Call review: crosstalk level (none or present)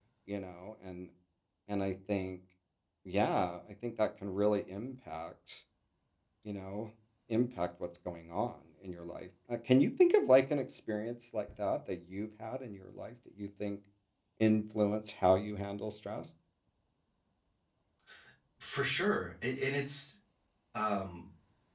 none